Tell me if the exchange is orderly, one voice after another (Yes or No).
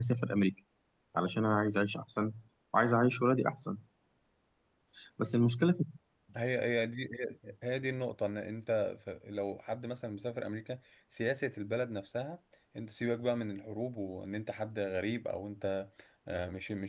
Yes